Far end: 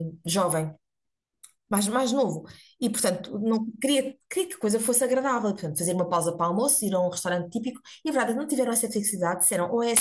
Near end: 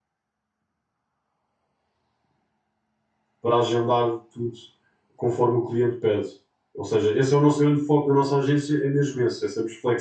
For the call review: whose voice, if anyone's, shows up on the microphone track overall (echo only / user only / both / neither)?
user only